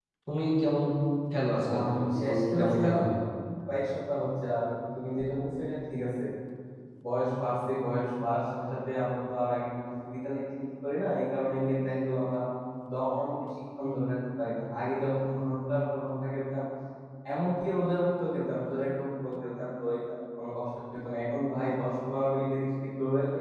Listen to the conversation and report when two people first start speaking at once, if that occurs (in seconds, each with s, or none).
1.7 s